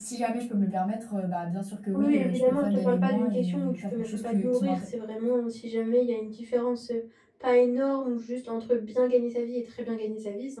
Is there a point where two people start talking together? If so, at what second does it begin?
2 s

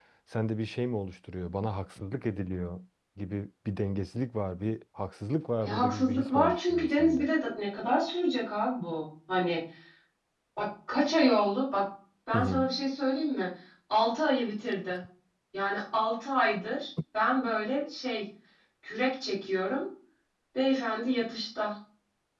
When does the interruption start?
6 s

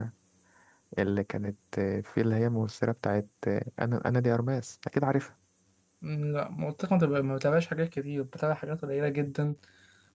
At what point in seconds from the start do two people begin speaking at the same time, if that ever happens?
none

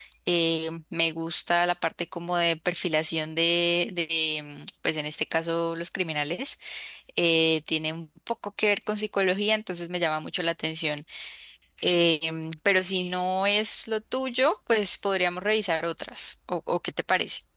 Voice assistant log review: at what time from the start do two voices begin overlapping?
none

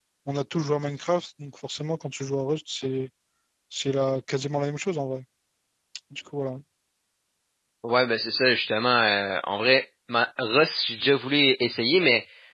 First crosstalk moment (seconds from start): none

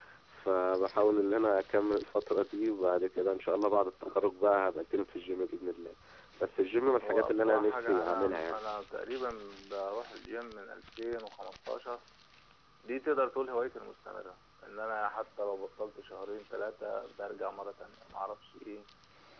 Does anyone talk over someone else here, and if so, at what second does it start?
7 s

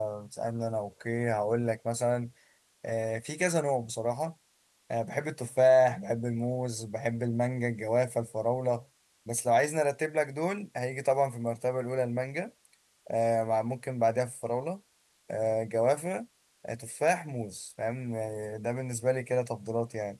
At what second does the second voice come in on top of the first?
none

